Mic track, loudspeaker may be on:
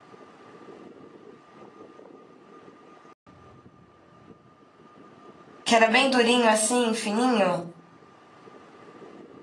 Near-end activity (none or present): present